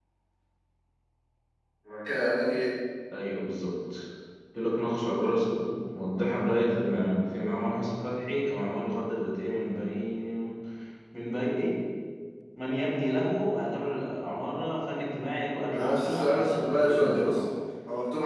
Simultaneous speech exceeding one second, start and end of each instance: 15.7-17.4

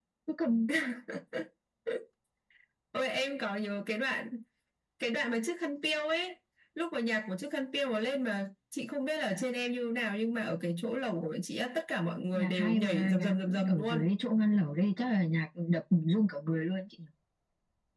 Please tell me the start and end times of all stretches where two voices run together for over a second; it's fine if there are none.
12.3-14.1

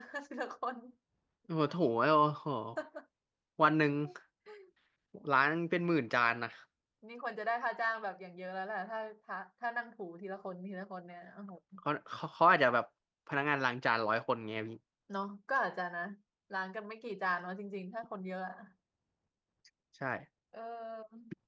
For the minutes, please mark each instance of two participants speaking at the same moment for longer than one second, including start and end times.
none

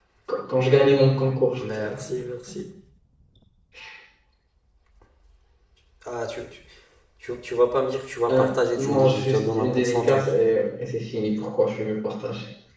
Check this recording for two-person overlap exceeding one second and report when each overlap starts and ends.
8.8-10.3

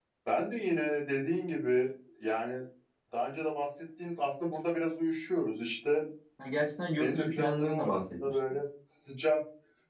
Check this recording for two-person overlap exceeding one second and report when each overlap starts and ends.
7.0-8.4

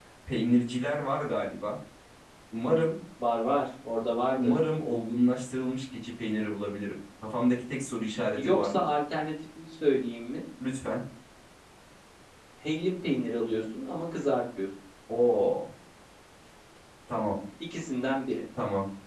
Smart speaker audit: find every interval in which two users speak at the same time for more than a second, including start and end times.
none

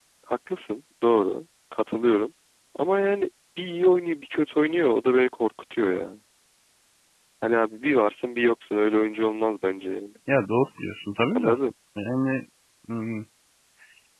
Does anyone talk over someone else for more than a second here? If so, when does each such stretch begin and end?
none

